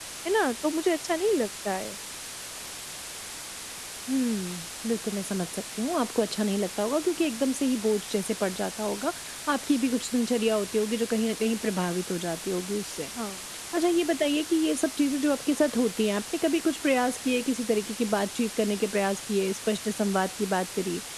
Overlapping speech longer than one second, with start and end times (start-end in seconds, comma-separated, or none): none